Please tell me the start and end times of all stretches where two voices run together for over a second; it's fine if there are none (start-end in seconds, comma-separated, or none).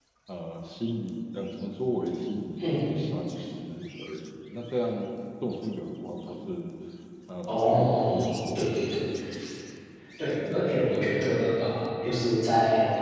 7.5-9.0